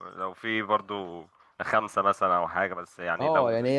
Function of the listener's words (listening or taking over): taking over